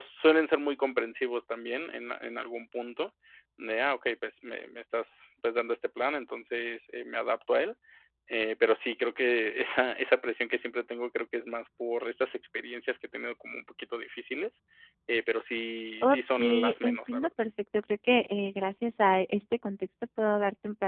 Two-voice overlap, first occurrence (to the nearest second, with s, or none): 16 s